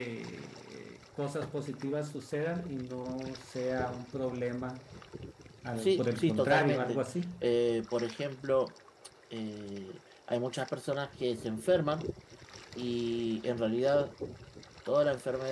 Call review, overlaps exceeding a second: present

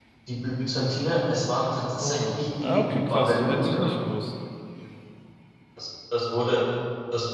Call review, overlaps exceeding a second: present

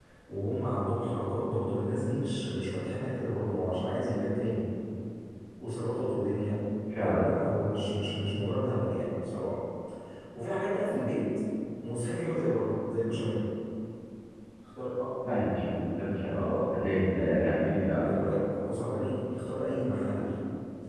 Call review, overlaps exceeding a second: none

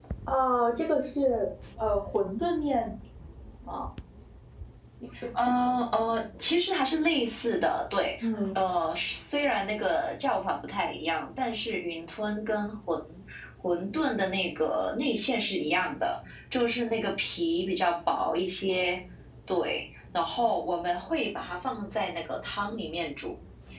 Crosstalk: none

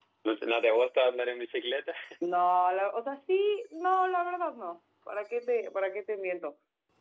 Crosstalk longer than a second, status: none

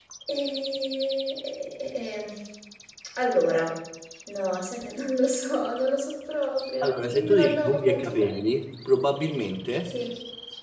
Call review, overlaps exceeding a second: present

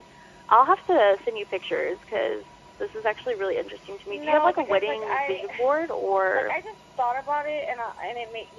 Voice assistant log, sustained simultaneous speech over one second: present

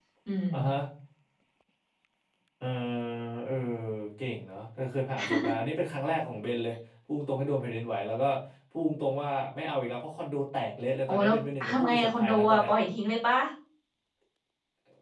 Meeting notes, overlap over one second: present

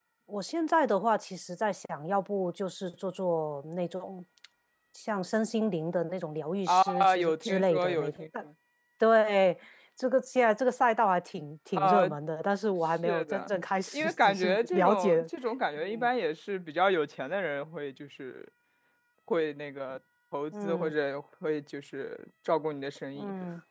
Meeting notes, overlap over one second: present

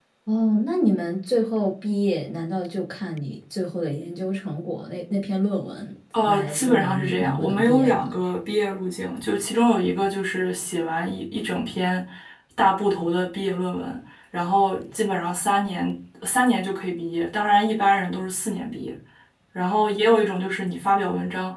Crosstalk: present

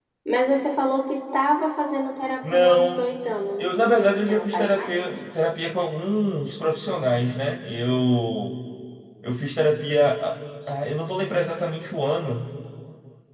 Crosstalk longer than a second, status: present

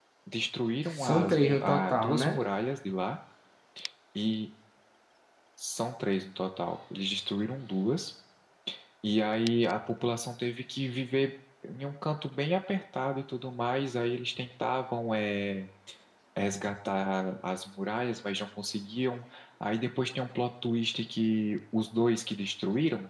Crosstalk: present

